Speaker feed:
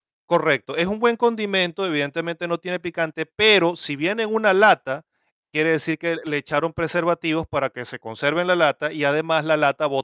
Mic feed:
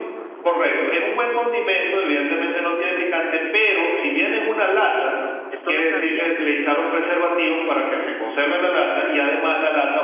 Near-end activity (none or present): present